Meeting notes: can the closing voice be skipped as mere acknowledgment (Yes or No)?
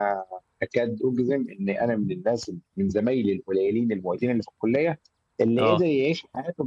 Yes